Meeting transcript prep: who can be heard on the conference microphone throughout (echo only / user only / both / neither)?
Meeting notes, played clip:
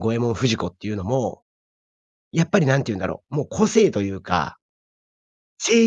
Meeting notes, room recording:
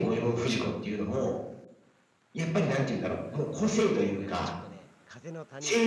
both